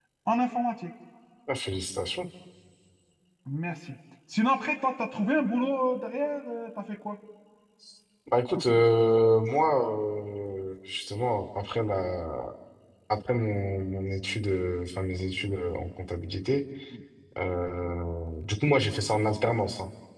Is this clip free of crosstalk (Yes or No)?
Yes